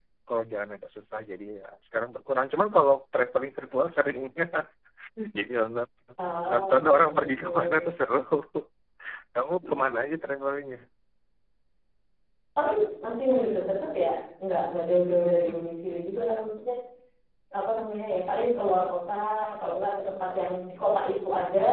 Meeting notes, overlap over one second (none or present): present